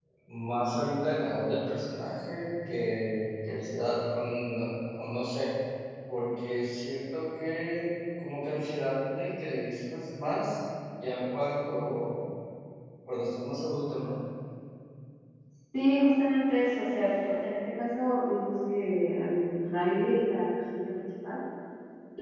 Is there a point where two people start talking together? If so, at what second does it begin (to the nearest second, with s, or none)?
none